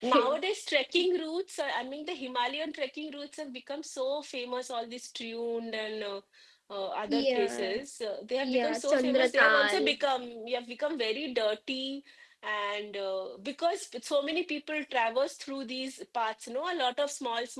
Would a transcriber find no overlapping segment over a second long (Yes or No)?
No